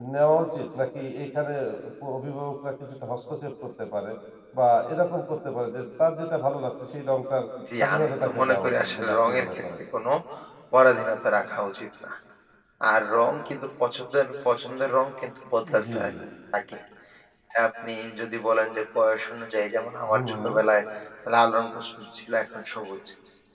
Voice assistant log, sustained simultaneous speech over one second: present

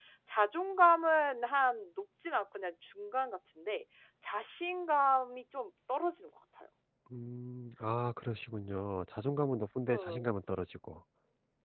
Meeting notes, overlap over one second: none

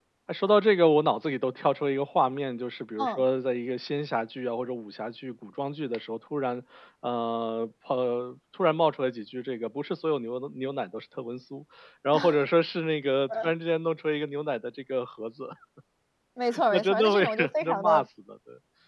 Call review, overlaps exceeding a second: present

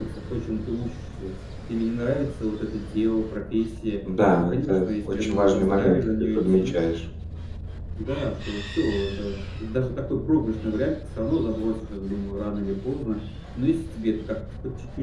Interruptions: present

